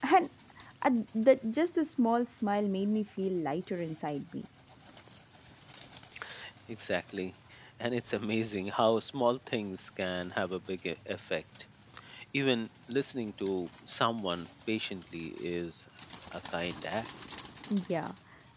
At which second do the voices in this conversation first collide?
none

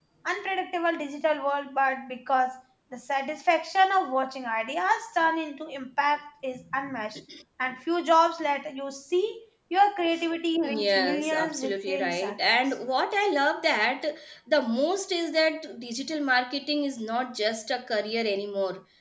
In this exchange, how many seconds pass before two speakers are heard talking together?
10.6 s

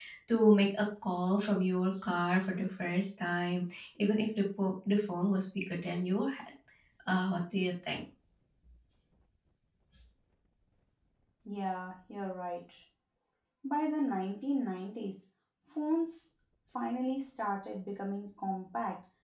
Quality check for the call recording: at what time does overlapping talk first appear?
none

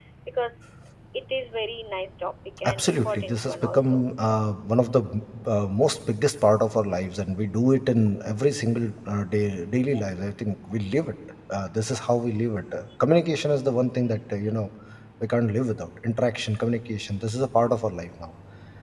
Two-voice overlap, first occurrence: 2.6 s

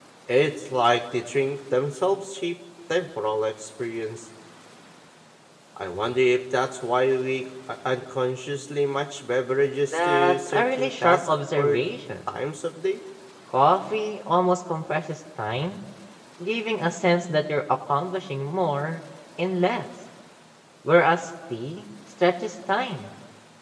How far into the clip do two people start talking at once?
9.9 s

